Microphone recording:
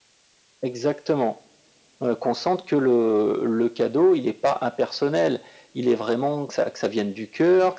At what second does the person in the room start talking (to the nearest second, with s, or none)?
none